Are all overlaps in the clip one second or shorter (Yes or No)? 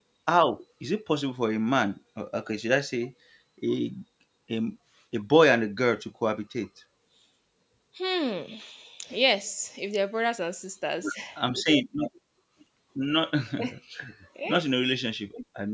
Yes